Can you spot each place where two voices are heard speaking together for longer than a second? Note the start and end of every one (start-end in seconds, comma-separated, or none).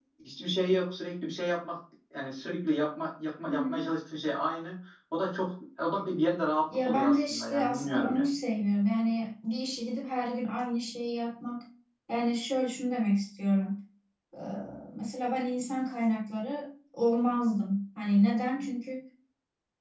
6.9-8.3